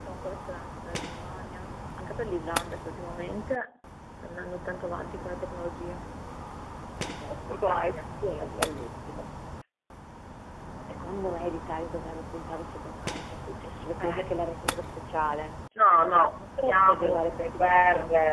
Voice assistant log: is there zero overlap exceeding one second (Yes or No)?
No